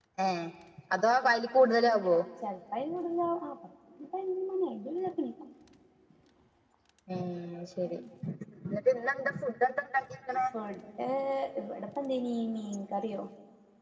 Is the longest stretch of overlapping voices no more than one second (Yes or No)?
Yes